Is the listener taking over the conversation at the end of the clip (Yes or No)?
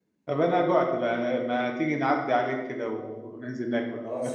Yes